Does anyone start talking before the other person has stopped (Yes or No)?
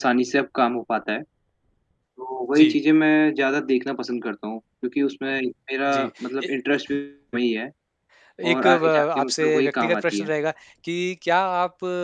Yes